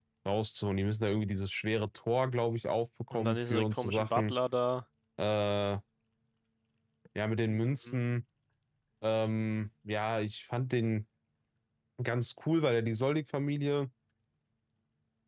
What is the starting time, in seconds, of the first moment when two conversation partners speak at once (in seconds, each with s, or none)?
3.1 s